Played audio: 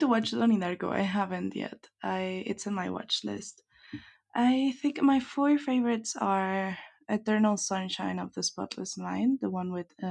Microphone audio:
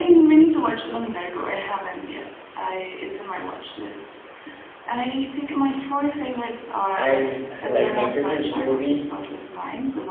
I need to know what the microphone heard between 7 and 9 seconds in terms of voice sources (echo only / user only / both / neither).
both